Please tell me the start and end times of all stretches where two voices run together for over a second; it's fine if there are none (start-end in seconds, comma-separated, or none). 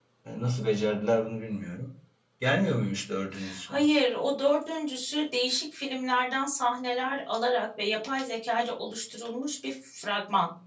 none